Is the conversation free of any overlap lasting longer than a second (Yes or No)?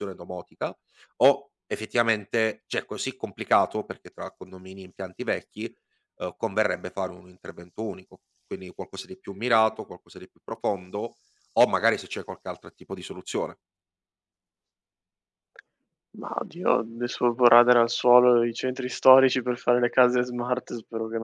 Yes